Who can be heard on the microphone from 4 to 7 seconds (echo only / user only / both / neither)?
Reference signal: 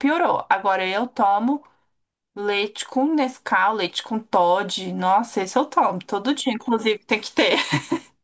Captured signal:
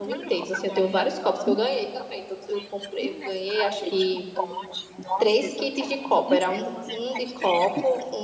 both